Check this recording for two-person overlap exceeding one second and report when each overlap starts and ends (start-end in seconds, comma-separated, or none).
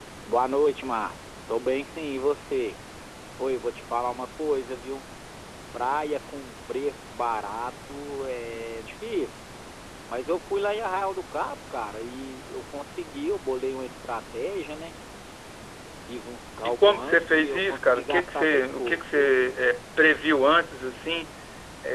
16.6-19.3